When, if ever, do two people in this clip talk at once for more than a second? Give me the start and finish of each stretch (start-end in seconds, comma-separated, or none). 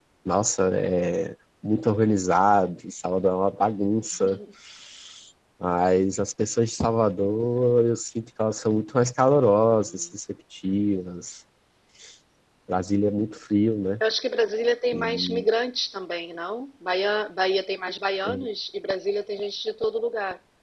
none